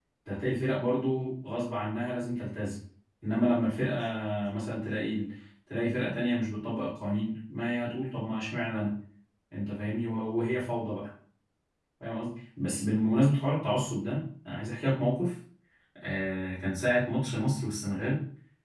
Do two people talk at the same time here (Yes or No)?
No